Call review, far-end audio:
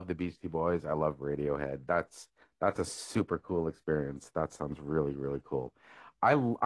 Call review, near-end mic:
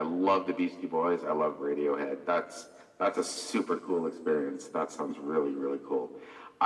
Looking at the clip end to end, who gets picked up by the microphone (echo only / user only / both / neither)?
echo only